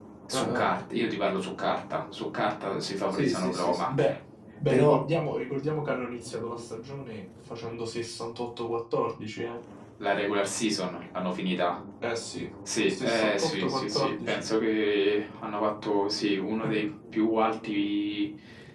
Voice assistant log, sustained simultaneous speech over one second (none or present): present